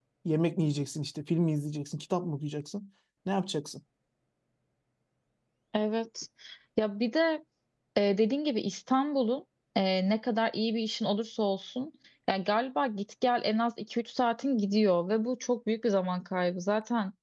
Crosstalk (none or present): none